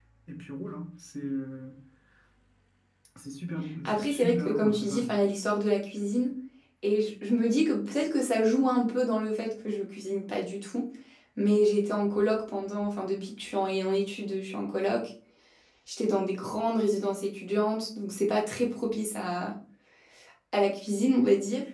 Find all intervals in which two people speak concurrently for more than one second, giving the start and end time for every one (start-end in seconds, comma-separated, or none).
3.9-5.2